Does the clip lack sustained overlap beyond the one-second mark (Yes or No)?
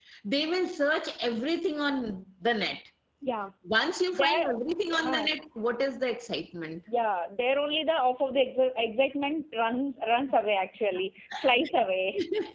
Yes